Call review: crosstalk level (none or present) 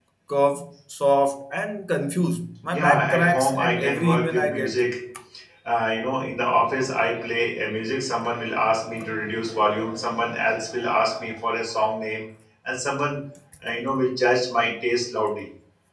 present